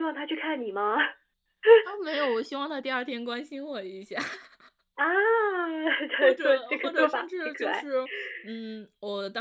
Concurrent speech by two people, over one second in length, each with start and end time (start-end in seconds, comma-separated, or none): 6.2-7.8